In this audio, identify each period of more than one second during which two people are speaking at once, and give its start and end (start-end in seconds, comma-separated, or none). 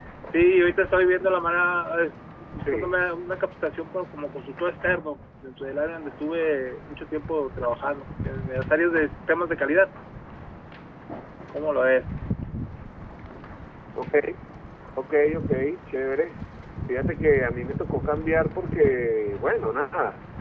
none